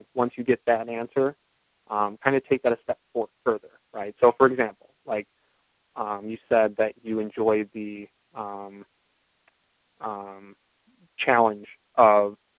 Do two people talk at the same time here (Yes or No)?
No